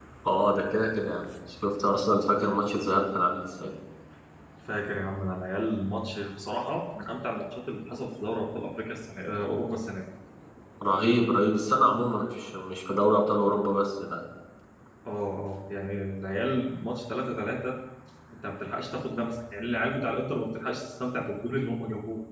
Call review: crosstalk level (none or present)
none